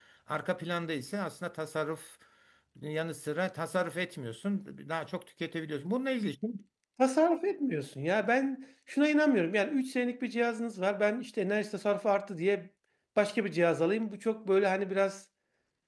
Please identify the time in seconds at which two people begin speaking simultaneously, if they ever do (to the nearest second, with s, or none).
none